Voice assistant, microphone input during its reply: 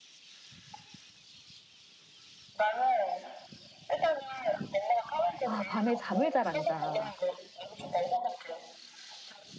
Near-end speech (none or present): present